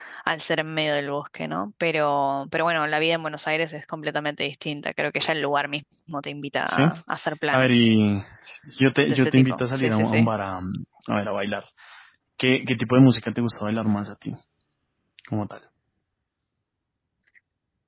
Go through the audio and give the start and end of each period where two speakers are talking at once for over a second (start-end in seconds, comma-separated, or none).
9.1-10.3